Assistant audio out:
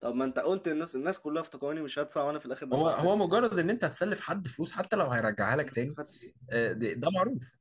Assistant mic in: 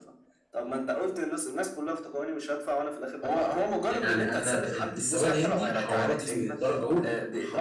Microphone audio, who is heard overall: both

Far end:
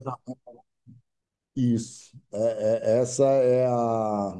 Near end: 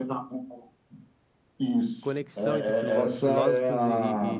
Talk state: both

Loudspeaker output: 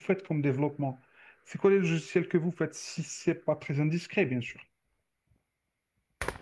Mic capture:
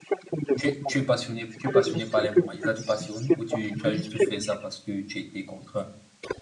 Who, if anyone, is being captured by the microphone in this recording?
both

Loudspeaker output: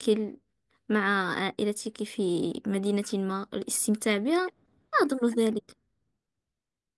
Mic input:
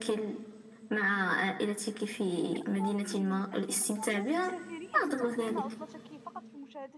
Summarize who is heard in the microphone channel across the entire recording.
both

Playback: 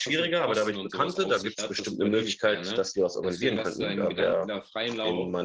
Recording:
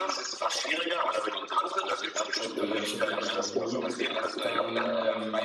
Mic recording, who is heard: both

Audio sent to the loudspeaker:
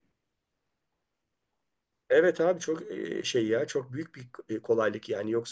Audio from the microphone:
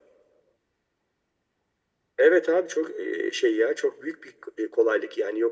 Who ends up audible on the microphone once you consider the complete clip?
echo only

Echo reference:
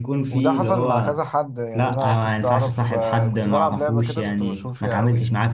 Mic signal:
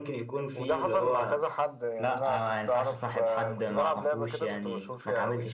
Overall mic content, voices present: echo only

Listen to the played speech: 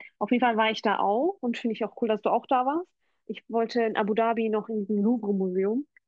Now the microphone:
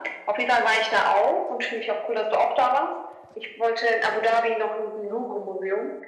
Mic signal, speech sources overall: echo only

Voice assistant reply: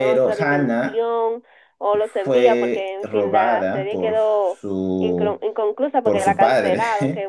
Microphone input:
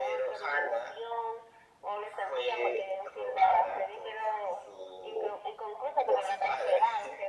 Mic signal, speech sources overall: echo only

